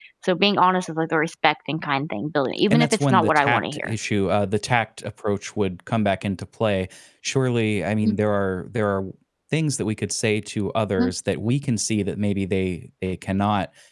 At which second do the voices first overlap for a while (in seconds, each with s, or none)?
2.7 s